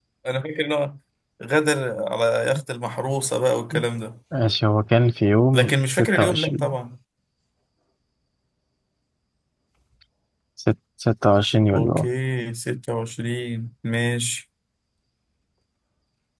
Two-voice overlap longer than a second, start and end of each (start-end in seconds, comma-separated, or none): 5.5-6.8